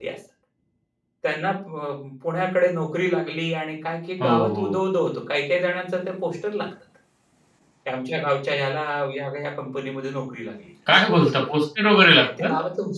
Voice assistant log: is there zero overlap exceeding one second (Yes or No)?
Yes